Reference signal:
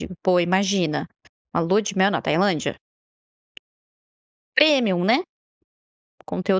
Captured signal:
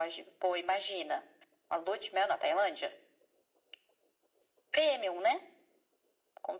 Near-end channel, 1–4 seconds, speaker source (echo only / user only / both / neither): echo only